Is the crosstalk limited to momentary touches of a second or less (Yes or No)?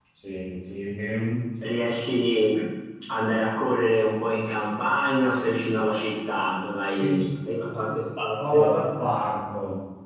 Yes